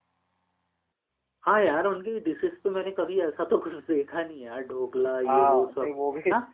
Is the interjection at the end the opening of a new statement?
Yes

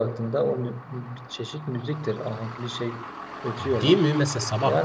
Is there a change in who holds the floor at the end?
Yes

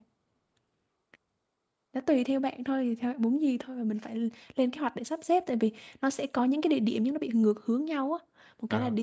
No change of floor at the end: Yes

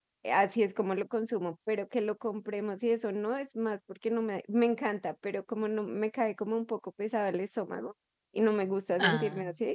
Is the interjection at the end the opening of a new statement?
No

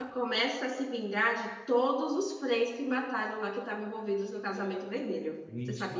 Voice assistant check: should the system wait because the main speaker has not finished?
No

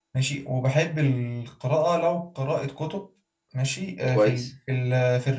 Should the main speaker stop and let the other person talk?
No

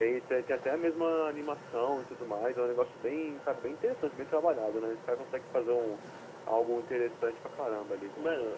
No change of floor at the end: No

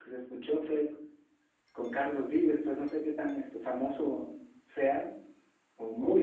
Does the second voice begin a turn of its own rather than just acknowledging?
Yes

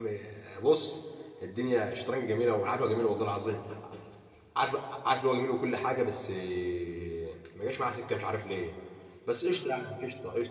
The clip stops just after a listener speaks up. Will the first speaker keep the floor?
Yes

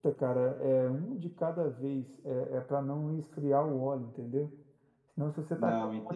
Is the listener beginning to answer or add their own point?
No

